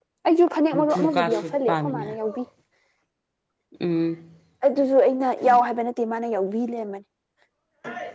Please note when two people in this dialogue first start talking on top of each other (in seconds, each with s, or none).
0.7 s